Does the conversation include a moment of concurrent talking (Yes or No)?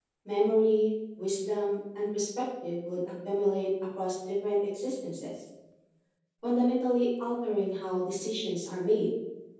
No